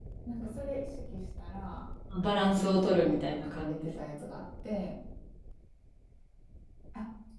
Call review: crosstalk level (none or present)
present